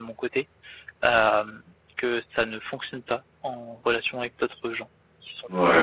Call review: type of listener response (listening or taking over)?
taking over